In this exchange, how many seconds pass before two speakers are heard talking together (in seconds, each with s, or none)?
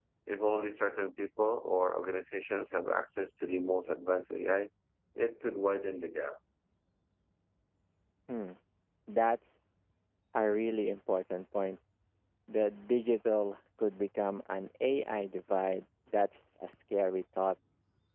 none